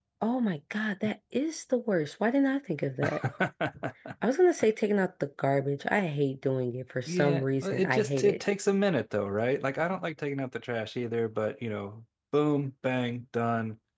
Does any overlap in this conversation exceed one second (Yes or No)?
Yes